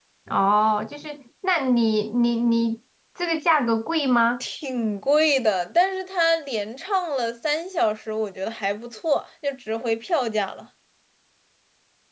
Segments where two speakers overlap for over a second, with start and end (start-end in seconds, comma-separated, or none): none